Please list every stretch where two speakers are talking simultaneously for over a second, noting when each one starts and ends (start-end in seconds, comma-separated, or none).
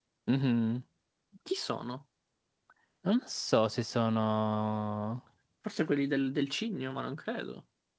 none